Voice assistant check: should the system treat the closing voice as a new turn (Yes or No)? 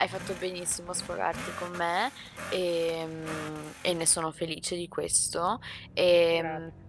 No